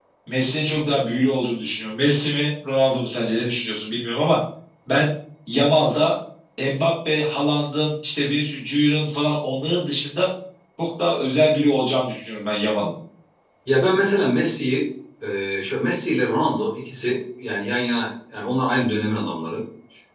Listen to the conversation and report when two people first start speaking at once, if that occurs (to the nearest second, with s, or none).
none